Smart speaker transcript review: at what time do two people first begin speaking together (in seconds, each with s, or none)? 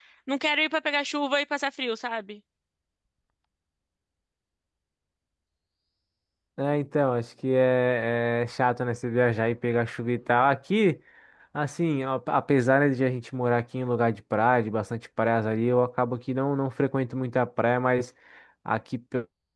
none